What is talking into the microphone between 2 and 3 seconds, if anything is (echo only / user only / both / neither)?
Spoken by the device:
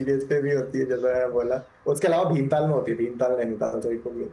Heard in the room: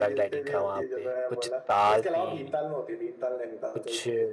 both